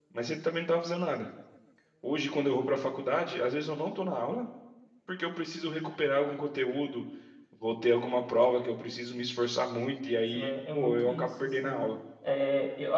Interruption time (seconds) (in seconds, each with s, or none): 10.3 s